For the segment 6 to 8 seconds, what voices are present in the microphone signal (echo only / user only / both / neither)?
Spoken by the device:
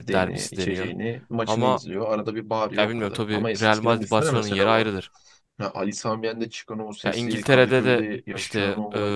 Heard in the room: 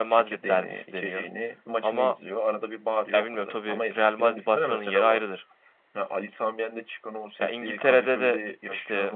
echo only